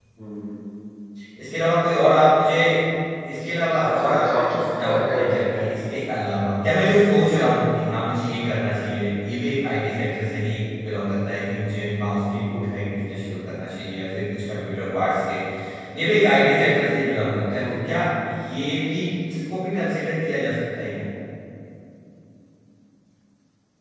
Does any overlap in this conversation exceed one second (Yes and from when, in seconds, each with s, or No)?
Yes, from 3.6 s